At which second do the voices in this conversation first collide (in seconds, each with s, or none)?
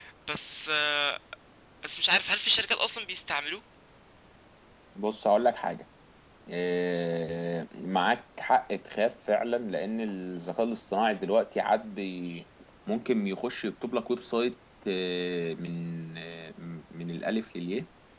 none